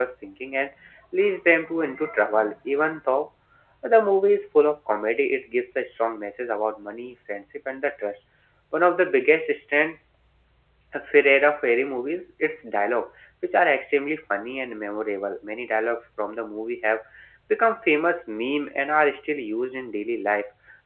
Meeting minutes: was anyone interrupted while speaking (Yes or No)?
No